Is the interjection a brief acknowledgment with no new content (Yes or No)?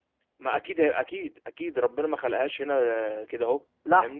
No